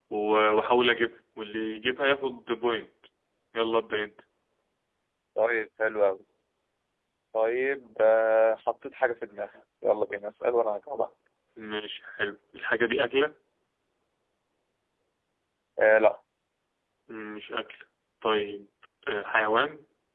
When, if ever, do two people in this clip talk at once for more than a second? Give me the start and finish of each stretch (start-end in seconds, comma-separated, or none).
none